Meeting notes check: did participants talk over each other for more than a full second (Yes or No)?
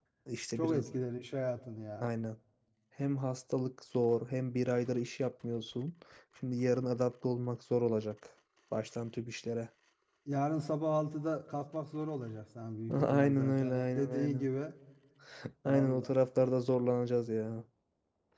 Yes